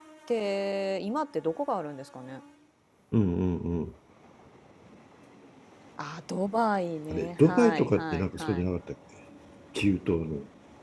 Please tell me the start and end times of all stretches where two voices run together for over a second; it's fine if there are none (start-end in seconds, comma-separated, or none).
7.1-8.6